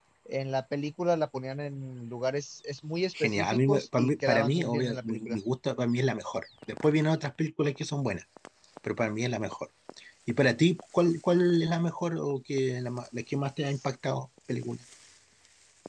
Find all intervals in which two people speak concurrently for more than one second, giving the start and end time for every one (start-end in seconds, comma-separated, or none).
3.2-5.4